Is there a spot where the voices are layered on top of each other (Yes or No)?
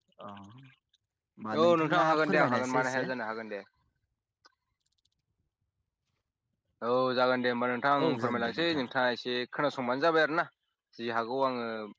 Yes